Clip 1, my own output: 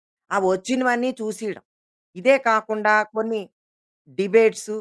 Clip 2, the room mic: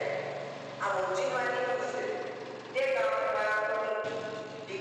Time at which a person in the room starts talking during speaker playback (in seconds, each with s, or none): none